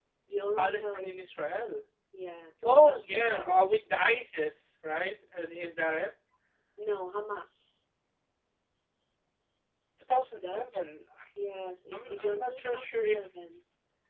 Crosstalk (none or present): present